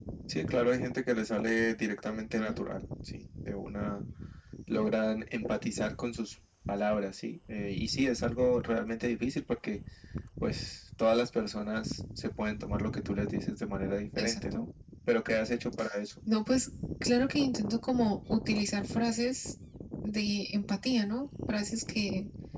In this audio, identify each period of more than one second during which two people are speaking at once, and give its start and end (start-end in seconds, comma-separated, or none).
none